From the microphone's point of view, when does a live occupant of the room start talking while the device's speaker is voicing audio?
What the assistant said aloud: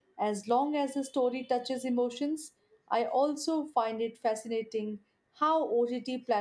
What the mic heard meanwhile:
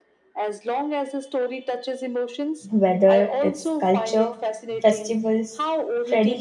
3 s

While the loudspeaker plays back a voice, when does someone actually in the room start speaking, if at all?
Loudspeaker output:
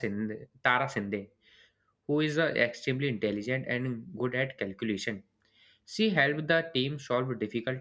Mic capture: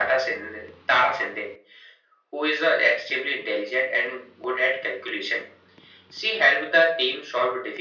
none

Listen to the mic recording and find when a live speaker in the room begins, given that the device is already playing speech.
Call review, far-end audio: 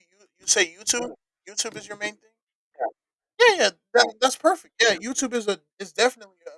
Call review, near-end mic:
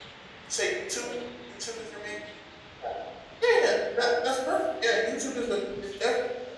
none

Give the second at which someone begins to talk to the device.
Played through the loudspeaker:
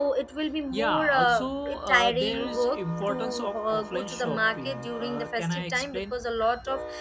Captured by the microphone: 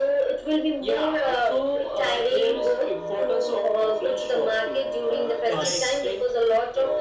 5 s

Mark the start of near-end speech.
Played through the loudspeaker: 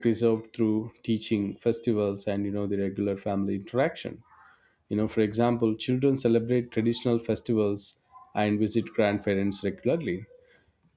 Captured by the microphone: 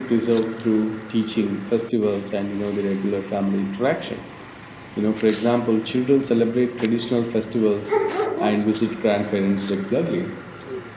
none

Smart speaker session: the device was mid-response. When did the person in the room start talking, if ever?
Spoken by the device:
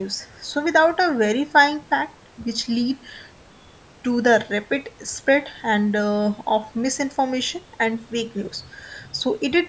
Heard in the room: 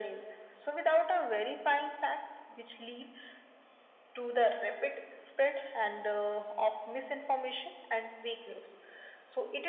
none

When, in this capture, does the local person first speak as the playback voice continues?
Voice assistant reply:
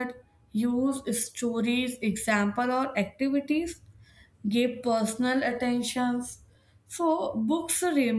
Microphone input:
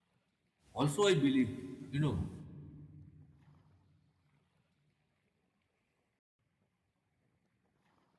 1 s

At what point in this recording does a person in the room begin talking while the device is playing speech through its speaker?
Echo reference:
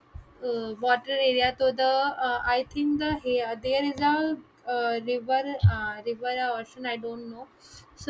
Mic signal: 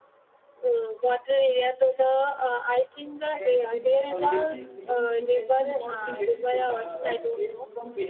3 s

